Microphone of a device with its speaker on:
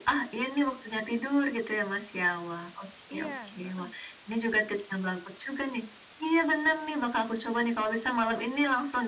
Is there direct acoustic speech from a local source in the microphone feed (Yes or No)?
Yes